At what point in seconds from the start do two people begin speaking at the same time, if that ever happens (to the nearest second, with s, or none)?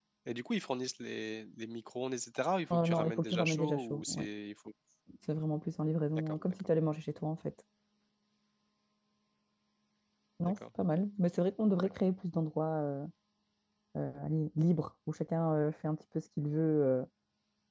3 s